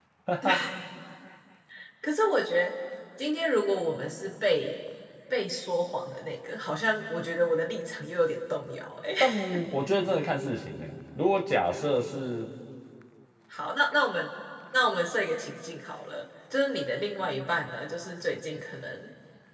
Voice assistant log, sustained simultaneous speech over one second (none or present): none